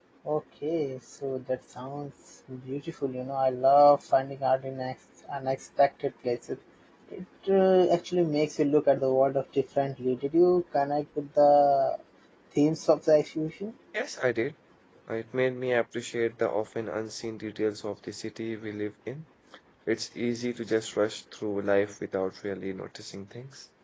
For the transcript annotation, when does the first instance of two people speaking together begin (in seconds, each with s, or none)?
none